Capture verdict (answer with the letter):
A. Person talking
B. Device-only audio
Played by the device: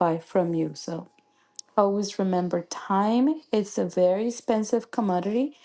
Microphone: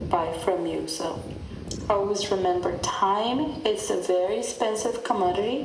B